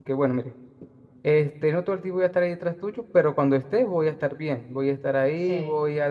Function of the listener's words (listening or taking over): listening